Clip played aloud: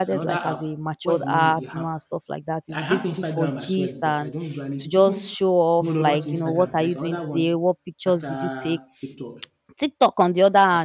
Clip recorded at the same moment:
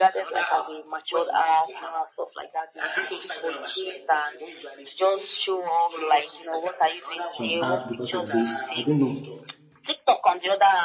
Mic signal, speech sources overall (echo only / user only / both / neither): both